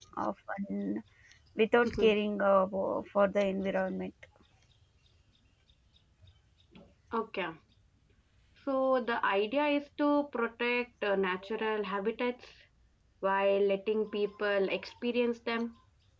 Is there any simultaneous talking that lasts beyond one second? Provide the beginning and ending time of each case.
none

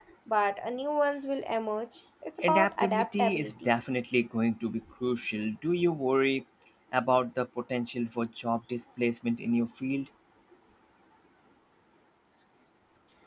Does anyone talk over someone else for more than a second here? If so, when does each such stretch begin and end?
2.4-3.7

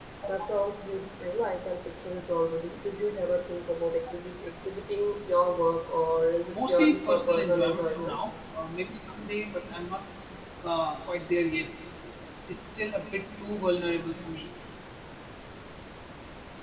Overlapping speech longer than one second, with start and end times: 6.5-8.2

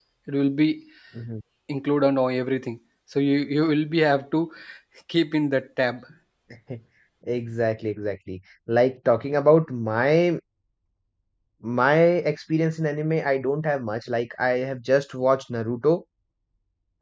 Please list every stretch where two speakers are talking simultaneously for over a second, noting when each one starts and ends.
none

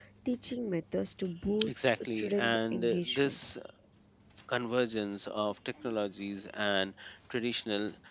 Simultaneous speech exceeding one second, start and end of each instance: 1.7-3.4

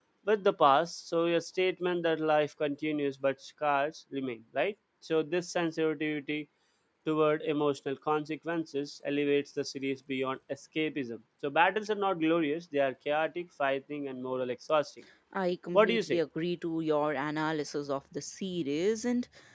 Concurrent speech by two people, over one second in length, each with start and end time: none

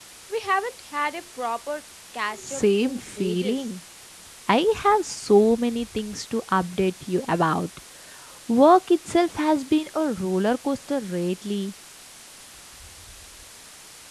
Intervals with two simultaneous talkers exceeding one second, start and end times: 2.3-3.6

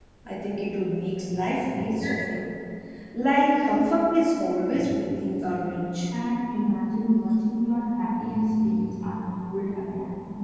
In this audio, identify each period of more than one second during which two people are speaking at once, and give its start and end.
none

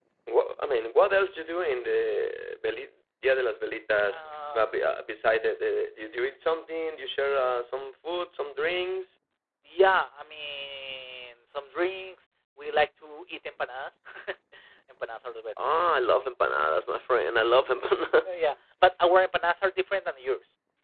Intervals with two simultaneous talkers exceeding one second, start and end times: none

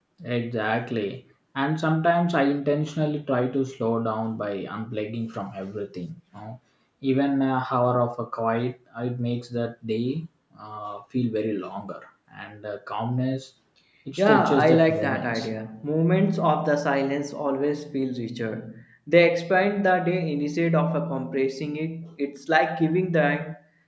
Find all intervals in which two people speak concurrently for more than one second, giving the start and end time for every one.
14.2-15.5

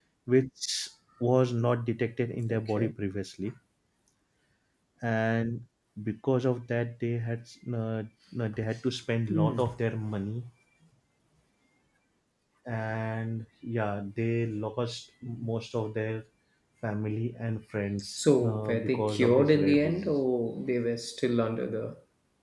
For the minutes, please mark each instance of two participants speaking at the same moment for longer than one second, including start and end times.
18.2-20.1

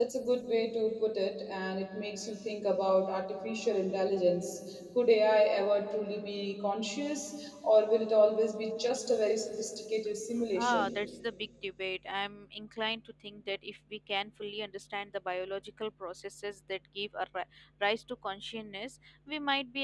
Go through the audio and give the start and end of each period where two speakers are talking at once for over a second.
none

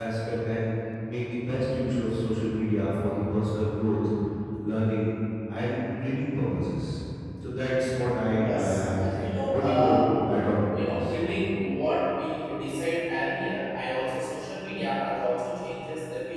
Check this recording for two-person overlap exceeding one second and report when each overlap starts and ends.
8.4-10.0

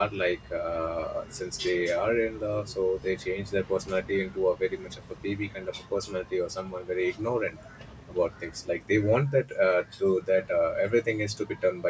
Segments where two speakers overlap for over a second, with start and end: none

